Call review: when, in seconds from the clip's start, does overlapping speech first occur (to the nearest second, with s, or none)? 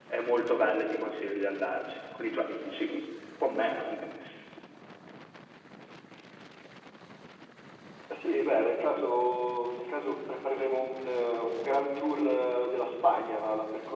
none